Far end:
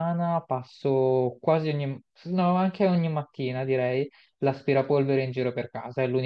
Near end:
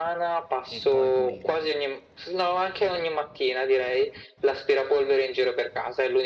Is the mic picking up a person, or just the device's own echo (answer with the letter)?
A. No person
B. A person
B